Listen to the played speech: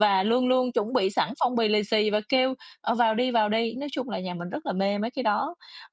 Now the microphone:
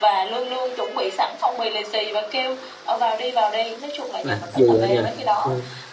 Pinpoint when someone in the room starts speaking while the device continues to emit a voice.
4.3 s

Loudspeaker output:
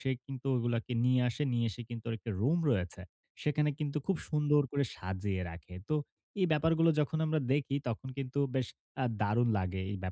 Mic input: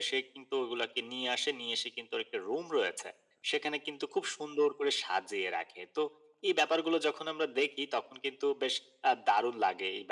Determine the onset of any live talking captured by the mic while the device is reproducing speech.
none

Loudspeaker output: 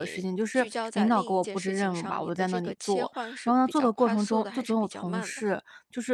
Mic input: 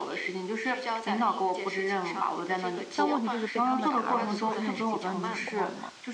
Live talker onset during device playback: 2.9 s

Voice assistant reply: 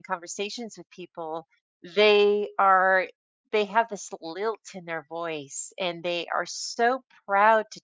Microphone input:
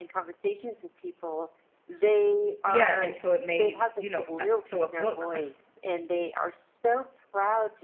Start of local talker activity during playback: 2.7 s

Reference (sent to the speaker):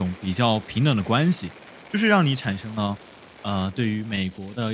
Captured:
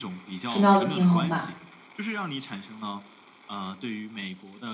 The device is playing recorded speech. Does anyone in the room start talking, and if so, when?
0.5 s

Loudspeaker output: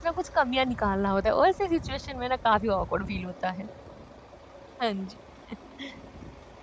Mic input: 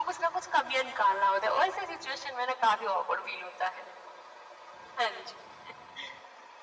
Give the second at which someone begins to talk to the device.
none

